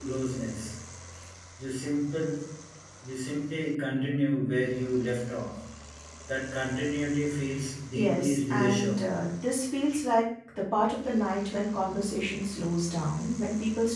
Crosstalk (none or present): present